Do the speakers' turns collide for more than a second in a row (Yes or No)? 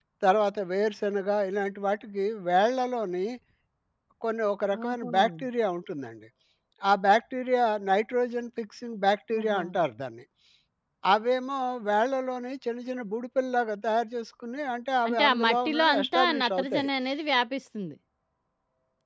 Yes